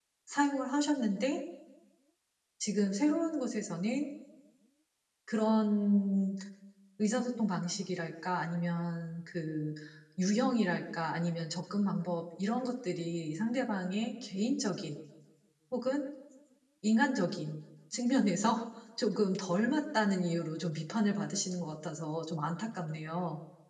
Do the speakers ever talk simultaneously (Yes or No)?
No